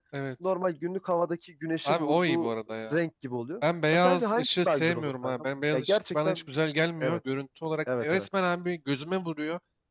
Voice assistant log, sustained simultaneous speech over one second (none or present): present